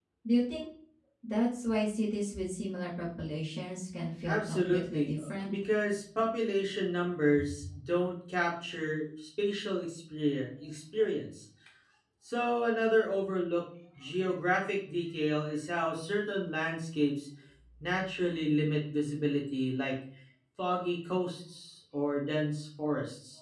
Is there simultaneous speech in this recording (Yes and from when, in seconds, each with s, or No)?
Yes, from 4.2 s